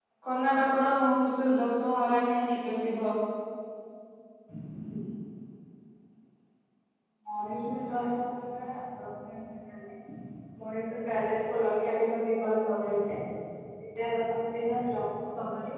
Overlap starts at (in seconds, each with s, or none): none